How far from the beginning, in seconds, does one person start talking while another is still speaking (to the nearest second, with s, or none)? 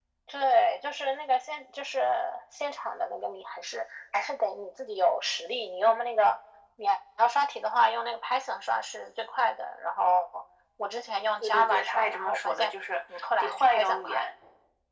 11 s